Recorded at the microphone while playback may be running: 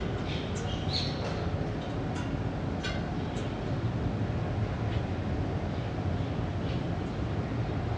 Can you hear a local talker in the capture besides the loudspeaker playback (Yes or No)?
No